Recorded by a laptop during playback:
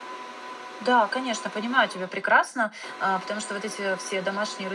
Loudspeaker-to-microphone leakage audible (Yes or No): No